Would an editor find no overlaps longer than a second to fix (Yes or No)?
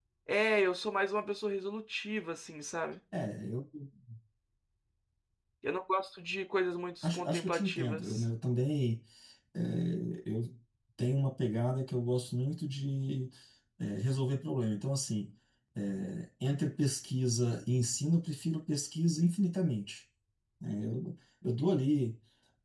No